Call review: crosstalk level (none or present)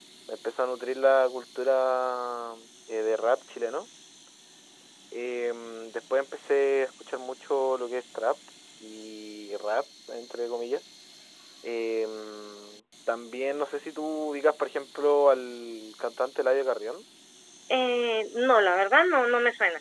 none